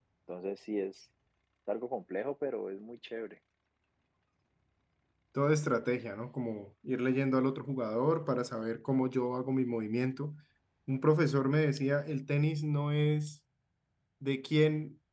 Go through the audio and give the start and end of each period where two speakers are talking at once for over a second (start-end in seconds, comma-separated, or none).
none